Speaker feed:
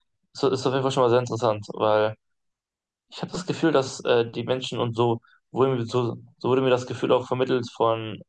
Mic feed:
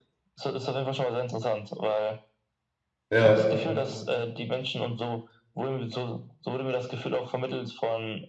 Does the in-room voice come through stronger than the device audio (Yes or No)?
Yes